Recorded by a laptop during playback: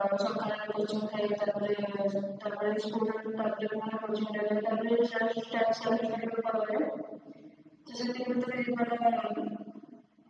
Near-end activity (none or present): none